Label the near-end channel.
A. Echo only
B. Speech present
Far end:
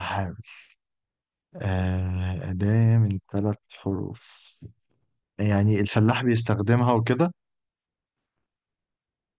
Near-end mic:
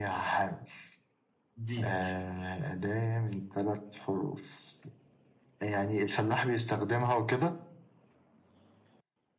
B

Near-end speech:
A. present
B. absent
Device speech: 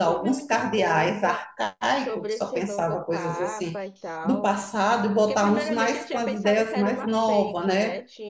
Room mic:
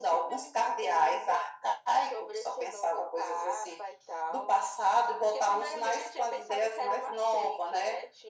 B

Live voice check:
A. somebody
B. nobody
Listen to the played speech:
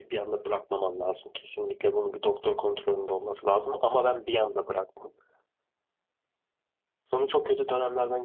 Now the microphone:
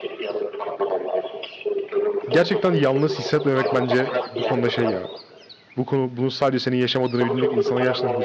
A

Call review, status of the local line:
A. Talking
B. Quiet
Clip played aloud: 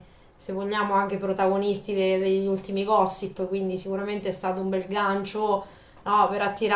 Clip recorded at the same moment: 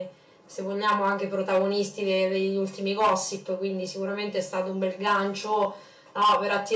B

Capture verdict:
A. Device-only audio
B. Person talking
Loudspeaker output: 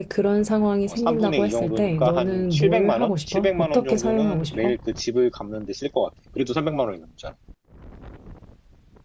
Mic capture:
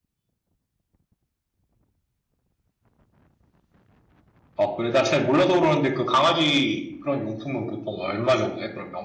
B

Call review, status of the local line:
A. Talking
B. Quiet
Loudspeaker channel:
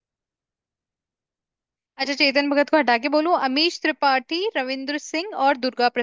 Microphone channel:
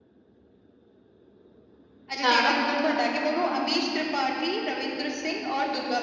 A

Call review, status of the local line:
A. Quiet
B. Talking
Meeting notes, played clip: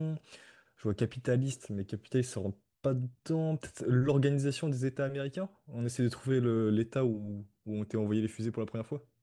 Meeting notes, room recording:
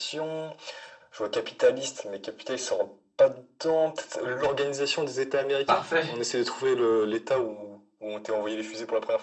B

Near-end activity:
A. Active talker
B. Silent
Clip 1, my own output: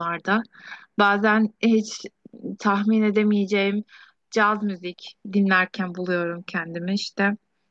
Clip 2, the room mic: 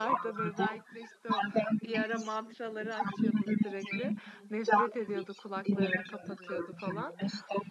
A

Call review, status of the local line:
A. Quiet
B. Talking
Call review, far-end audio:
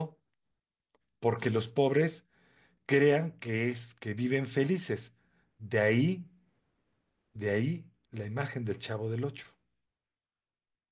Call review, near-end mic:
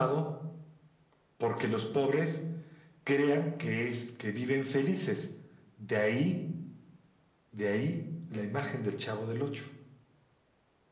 B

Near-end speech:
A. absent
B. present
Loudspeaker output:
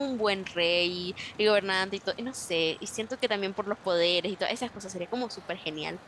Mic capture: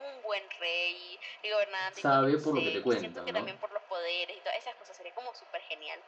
B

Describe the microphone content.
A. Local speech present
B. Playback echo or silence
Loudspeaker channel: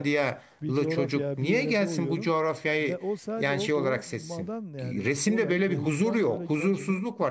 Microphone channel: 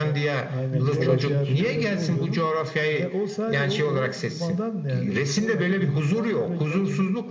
A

